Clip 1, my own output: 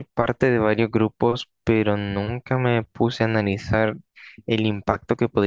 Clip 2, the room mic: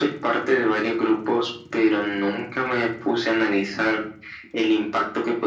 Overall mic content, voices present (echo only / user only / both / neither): echo only